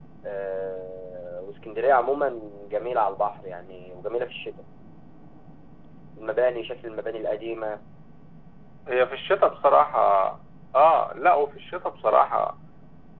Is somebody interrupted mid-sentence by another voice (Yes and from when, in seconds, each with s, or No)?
No